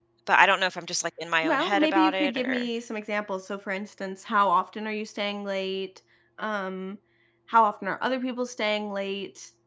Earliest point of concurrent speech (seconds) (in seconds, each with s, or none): 1.4 s